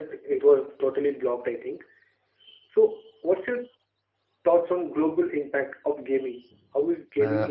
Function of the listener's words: taking over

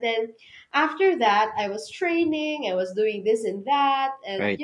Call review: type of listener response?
listening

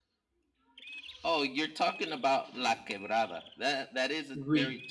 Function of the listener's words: listening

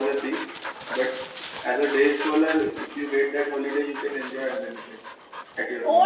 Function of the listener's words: taking over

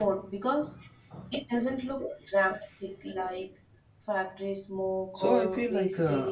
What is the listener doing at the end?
taking over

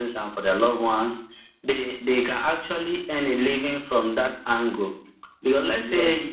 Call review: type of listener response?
listening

